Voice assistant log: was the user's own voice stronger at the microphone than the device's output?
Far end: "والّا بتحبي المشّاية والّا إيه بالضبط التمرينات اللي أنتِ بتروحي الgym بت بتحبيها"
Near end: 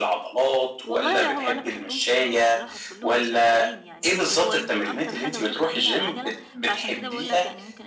No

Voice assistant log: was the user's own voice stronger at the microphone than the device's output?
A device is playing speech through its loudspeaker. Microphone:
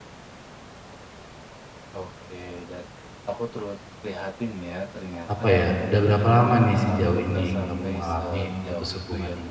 Yes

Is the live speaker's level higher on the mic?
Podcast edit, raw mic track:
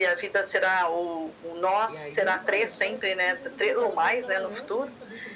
No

